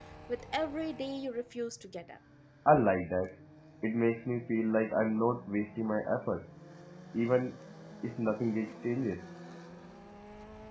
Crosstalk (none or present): none